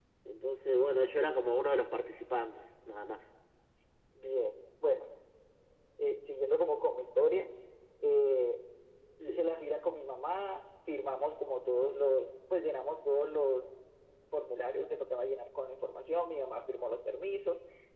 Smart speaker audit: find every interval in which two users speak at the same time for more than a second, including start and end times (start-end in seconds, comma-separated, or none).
none